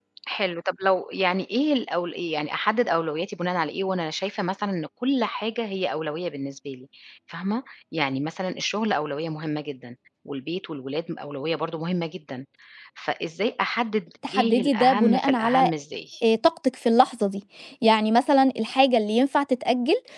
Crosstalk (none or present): present